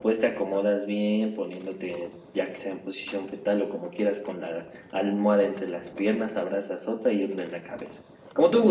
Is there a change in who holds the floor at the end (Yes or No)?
Yes